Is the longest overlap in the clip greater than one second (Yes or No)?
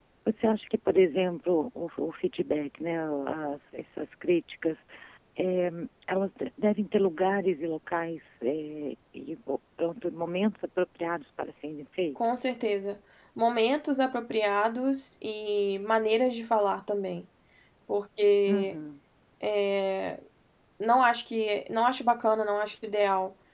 No